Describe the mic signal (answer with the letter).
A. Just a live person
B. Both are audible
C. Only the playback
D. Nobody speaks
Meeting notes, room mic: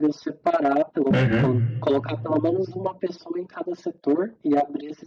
B